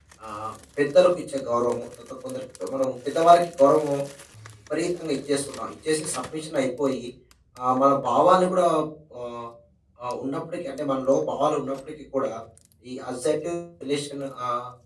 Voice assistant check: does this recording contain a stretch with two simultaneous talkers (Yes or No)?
No